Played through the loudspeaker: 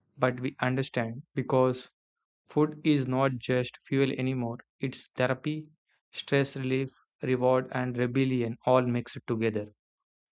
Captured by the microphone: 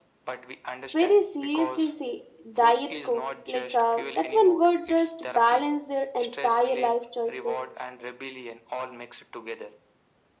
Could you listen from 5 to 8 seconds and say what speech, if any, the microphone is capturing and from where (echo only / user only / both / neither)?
both